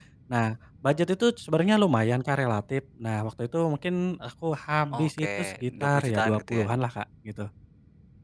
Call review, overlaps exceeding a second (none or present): present